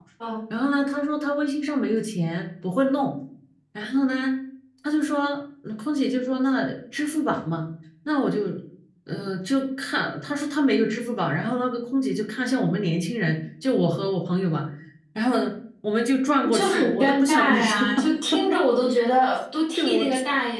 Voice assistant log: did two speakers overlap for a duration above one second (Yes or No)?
Yes